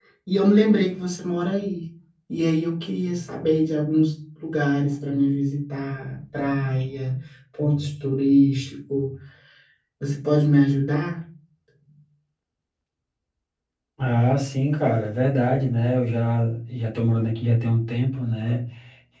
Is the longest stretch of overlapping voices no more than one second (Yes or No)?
Yes